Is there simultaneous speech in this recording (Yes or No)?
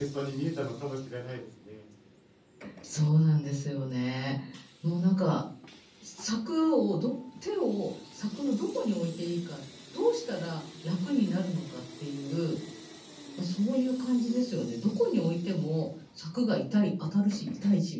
No